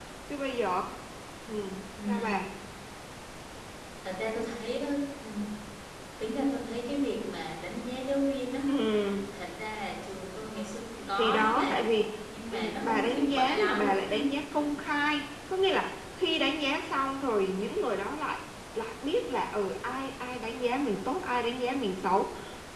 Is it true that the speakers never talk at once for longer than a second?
No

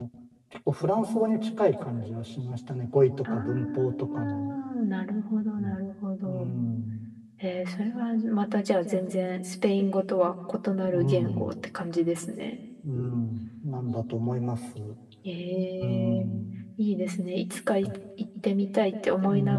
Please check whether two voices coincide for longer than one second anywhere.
Yes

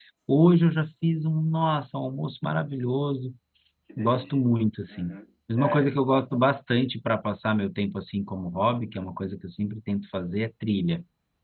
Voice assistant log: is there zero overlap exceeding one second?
Yes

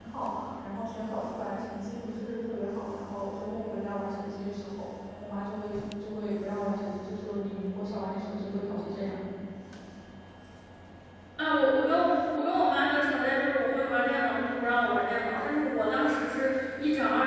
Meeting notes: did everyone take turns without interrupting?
Yes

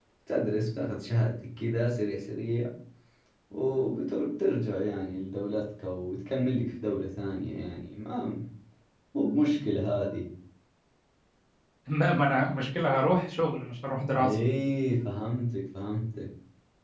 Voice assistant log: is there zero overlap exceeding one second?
Yes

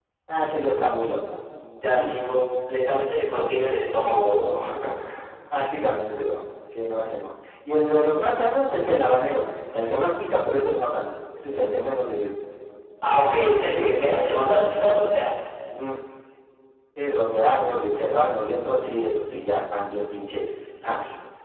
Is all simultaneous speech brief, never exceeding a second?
Yes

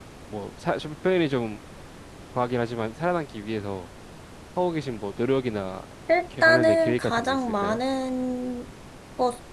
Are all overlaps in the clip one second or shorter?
No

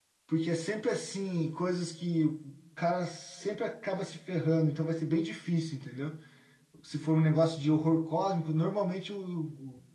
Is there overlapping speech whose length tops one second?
No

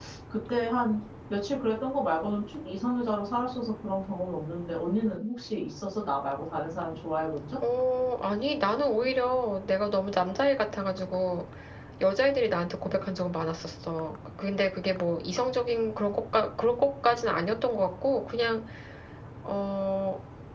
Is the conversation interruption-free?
Yes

